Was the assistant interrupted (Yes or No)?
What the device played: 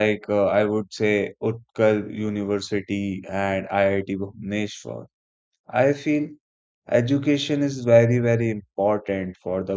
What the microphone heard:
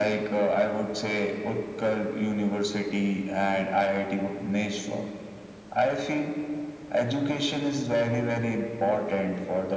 No